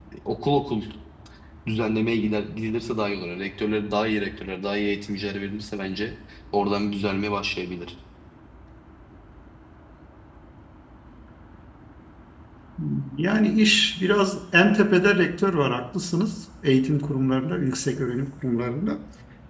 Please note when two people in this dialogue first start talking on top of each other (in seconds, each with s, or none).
none